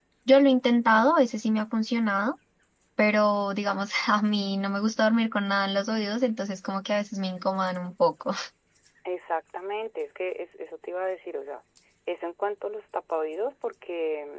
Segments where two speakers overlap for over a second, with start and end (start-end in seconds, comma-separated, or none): none